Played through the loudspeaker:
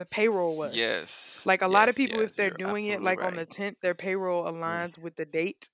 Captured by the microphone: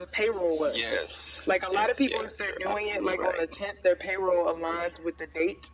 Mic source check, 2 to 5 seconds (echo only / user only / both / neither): echo only